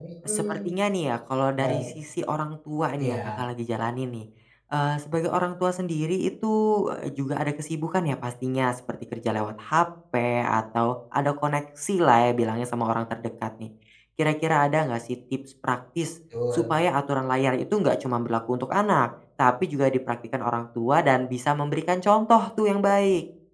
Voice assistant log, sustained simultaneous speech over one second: none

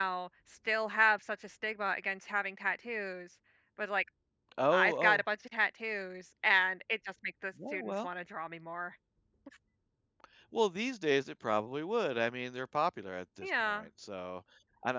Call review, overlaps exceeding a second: none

